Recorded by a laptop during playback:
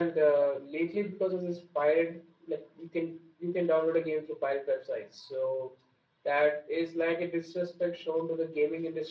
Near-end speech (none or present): none